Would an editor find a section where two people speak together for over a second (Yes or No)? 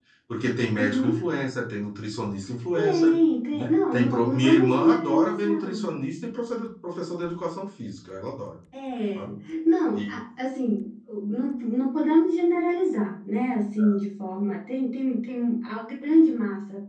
Yes